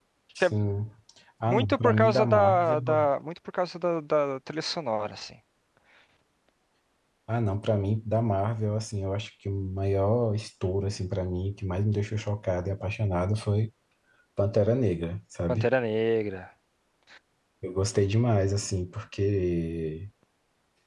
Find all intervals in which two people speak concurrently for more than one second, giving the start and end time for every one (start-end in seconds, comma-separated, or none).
1.5-3.0